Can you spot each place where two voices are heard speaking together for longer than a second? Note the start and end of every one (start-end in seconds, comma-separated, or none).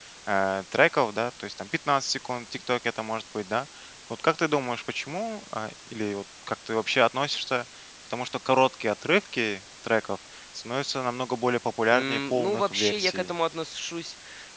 11.9-13.3